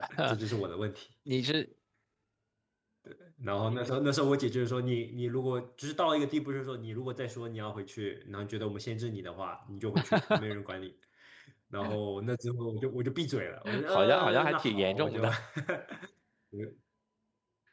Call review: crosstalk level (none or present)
present